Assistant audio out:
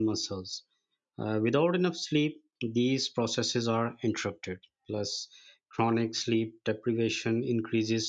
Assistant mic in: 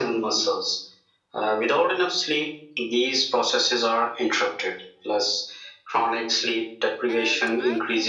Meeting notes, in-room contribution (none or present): present